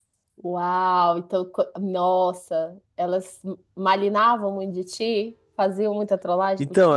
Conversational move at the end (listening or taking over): taking over